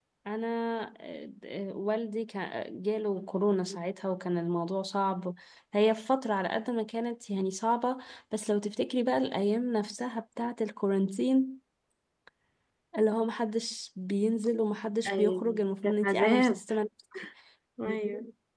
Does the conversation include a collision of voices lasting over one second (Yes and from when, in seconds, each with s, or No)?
Yes, from 15.0 s